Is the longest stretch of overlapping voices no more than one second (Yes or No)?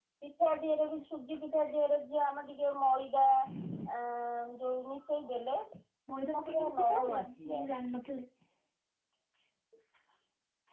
No